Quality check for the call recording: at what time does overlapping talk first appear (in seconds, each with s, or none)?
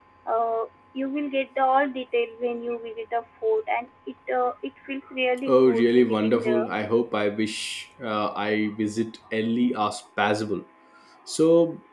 5.5 s